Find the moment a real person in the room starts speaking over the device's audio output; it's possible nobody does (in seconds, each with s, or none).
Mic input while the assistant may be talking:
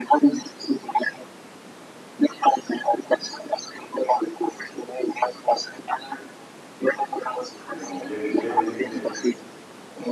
7.7 s